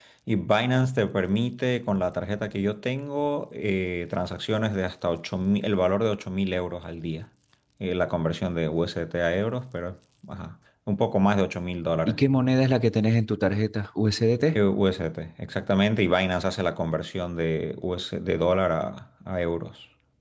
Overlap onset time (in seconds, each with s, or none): none